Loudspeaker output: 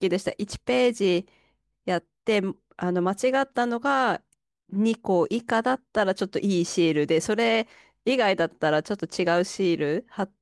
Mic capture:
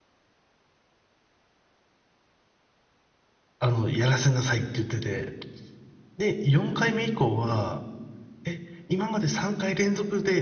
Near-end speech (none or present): present